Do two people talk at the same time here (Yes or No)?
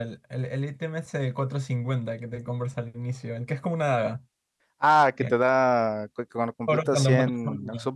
Yes